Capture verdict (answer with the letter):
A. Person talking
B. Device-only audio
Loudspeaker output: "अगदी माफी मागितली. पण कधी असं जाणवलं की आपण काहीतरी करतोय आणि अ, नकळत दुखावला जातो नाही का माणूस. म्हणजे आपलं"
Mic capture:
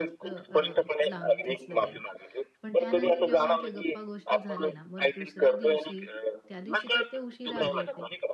A